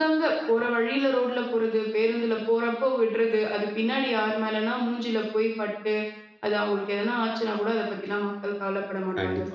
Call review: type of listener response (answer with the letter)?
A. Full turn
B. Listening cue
A